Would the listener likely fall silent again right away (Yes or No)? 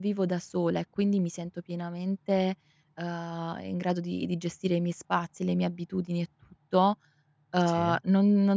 Yes